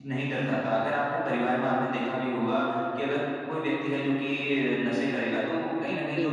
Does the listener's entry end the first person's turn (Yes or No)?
No